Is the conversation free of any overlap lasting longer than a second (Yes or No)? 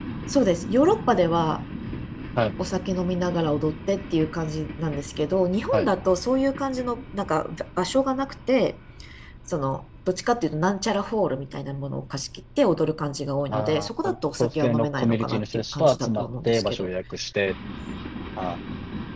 No